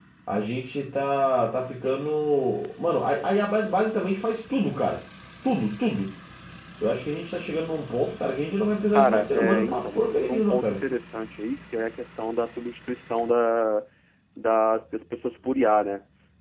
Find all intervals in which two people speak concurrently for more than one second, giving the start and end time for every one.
8.9-10.8

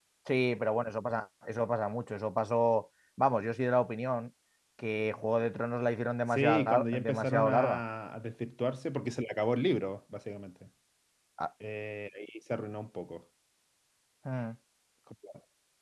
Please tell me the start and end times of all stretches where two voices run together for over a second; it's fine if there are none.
6.3-7.8

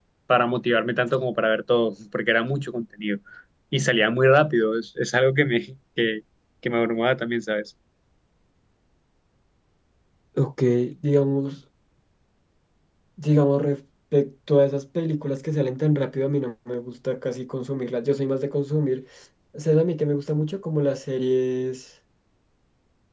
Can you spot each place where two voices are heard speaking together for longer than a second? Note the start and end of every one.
none

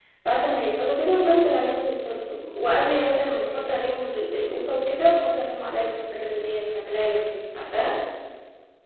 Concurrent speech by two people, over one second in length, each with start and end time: none

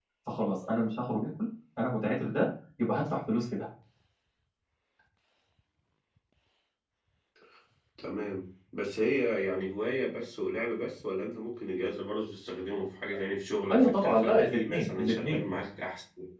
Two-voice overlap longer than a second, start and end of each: 13.7-15.4

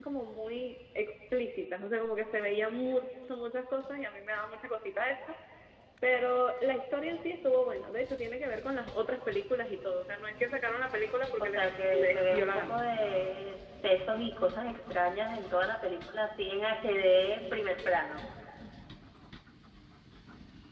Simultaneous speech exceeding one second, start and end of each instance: 11.4-12.7

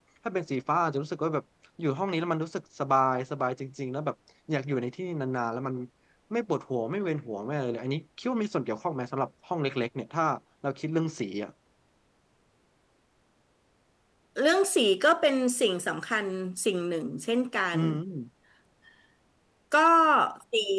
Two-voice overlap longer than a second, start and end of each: none

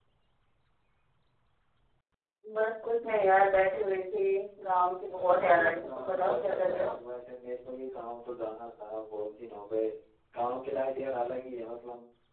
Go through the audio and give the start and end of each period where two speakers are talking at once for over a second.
5.1-6.9

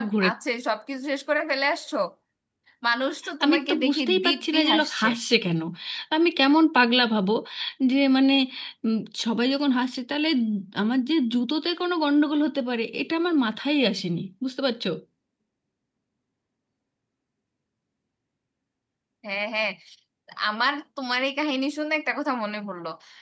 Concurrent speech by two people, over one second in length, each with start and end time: 3.4-5.1

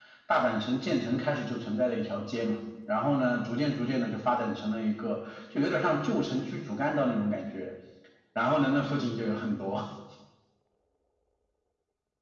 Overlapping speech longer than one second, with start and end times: none

